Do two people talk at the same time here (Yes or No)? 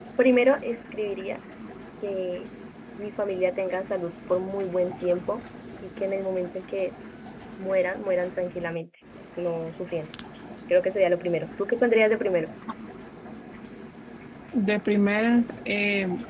No